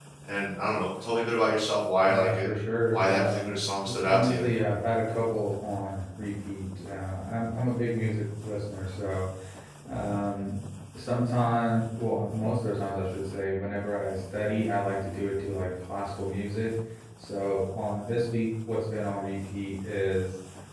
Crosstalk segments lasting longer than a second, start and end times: 2.9-4.5

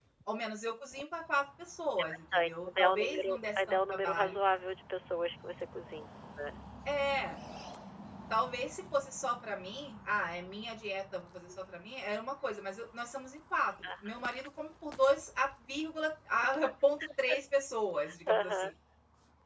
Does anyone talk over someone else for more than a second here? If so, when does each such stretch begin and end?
2.3-4.4

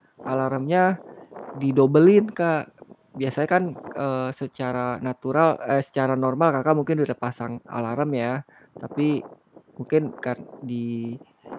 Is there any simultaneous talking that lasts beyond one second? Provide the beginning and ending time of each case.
none

